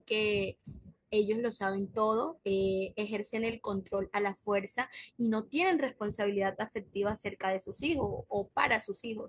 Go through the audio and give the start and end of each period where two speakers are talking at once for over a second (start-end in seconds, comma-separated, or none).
none